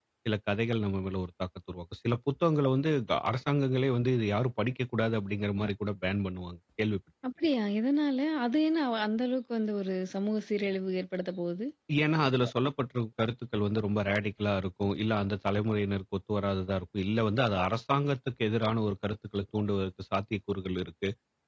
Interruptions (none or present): none